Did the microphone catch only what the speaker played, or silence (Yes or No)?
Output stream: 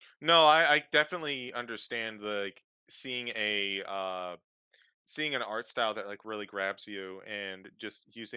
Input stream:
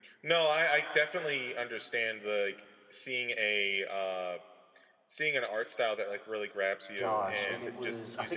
No